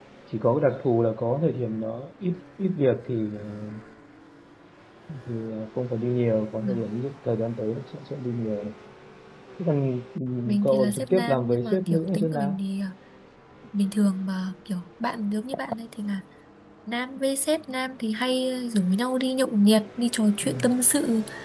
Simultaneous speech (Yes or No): Yes